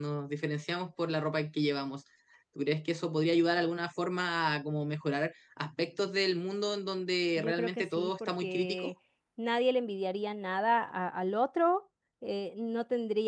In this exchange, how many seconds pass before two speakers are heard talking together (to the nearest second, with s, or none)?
7 s